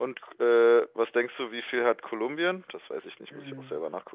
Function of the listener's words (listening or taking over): taking over